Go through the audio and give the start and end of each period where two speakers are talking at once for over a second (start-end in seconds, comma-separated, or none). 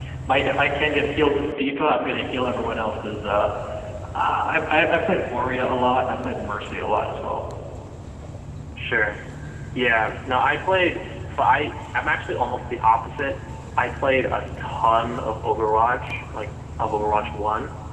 none